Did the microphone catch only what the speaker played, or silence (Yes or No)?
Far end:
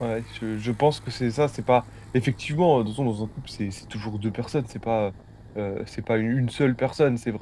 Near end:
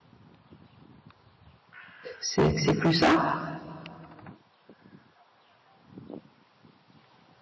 No